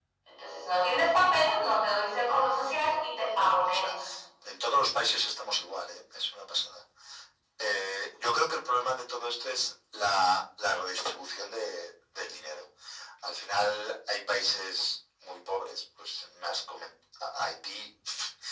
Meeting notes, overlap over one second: present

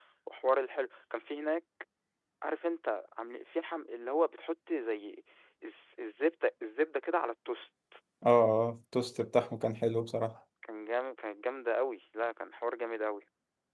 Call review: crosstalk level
none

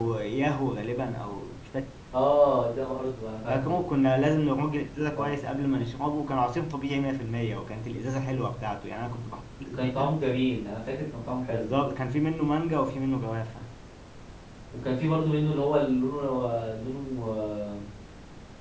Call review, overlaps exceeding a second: none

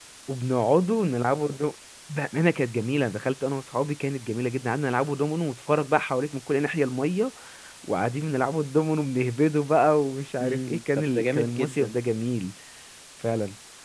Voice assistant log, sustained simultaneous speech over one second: present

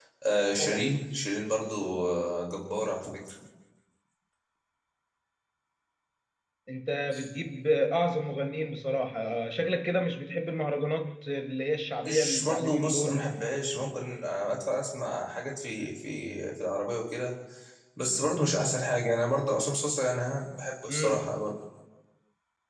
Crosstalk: present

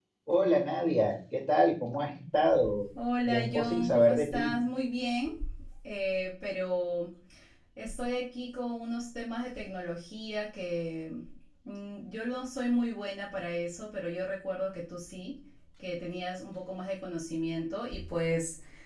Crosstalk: present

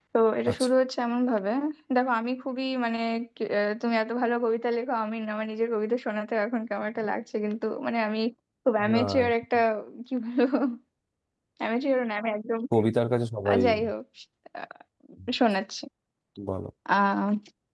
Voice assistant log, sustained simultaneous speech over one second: none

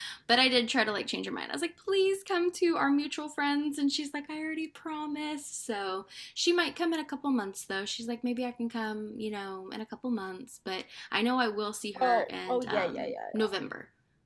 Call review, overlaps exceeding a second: present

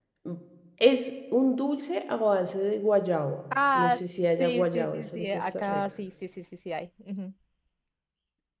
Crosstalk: present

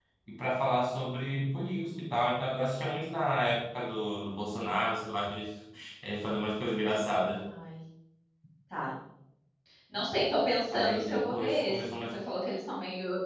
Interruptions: present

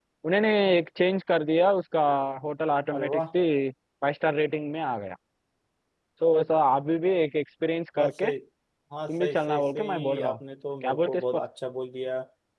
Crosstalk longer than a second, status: present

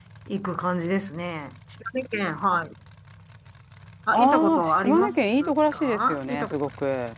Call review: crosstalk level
present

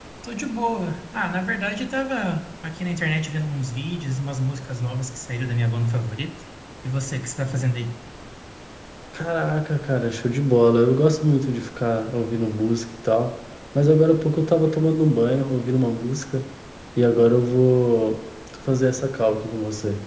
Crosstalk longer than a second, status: none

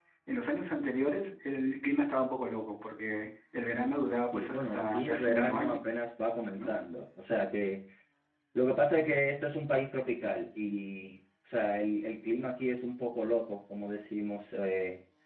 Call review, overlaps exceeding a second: present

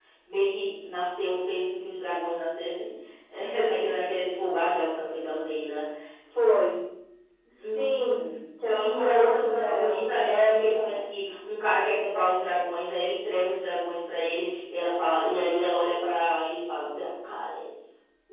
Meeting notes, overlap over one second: present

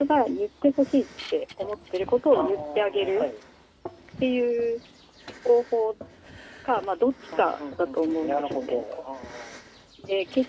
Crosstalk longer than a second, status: present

